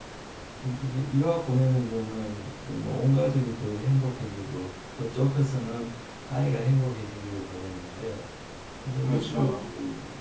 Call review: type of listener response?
listening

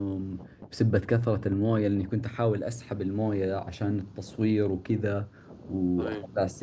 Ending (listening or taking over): listening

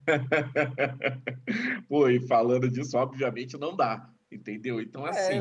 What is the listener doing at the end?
taking over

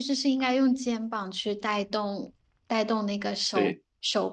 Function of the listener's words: listening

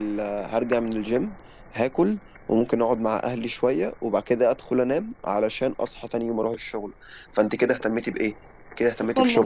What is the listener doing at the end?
listening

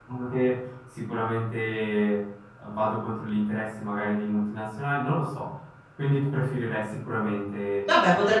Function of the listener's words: taking over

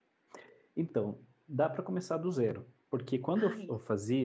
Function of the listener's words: listening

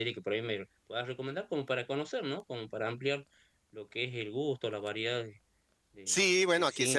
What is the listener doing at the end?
taking over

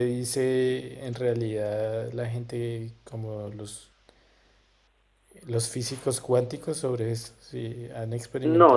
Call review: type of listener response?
taking over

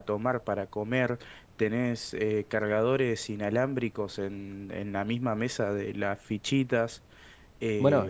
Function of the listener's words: taking over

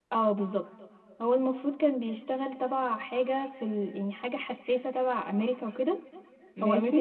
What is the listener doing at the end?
listening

